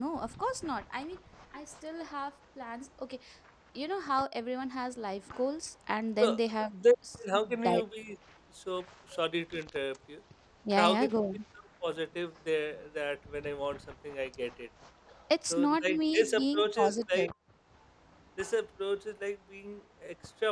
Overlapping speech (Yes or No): Yes